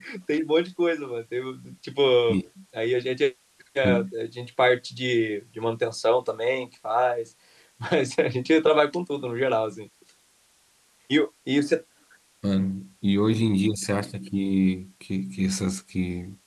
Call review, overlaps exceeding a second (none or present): none